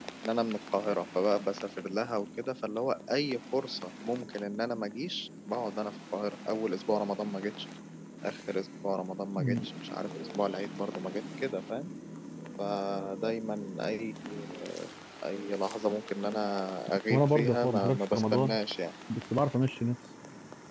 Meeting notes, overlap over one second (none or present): present